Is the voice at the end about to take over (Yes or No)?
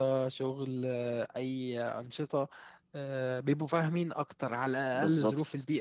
Yes